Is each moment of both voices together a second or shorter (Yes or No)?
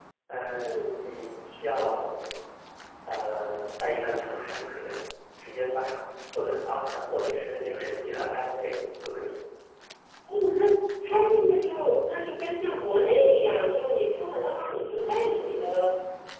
Yes